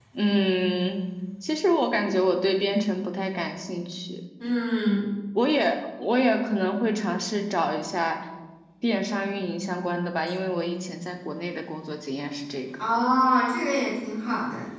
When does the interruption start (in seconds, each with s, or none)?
none